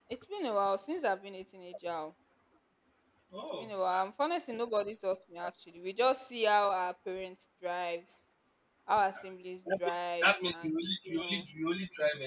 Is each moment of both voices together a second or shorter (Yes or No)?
No